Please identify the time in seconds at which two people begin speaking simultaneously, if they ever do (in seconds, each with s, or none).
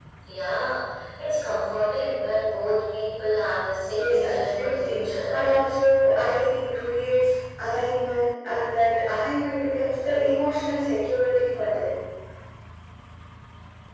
3.9 s